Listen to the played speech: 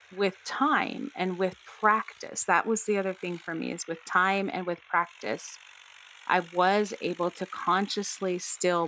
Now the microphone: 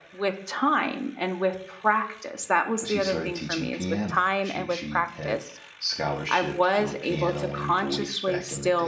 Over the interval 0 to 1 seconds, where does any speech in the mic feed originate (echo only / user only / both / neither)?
echo only